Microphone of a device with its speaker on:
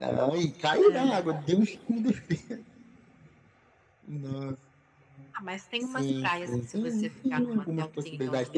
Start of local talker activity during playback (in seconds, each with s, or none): 0.8 s